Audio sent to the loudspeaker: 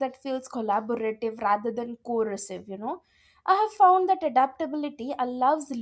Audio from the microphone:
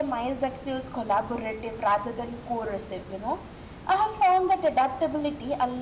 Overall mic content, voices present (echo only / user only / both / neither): echo only